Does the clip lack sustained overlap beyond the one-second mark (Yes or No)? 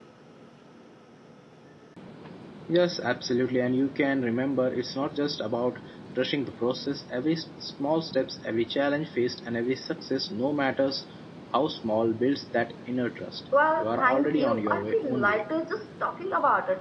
No